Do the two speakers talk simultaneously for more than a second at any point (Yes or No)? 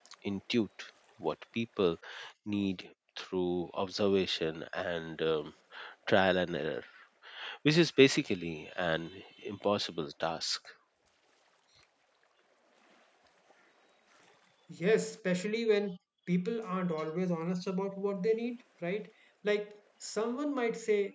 No